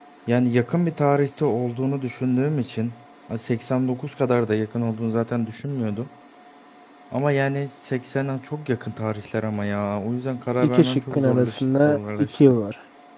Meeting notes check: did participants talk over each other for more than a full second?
Yes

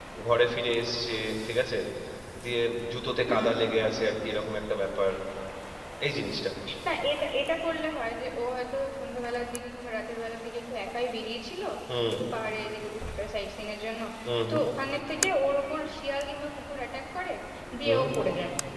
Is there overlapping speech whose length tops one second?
No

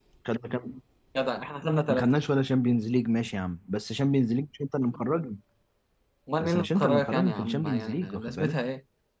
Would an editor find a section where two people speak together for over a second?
Yes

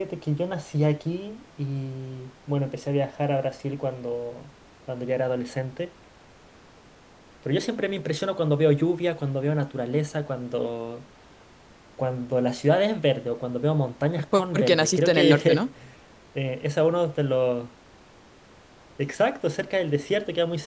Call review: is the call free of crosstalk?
No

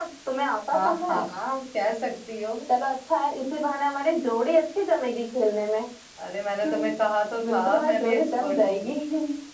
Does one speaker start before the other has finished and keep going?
Yes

